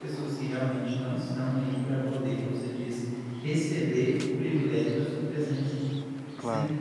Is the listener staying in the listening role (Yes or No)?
No